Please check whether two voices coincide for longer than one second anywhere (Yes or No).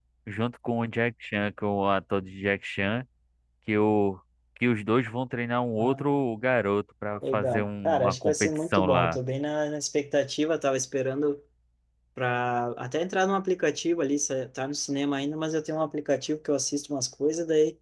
Yes